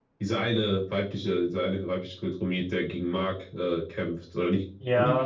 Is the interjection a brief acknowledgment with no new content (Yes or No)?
No